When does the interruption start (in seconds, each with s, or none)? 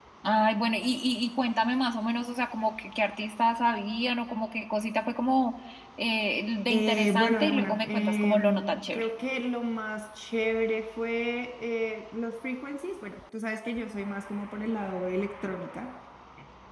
6.7 s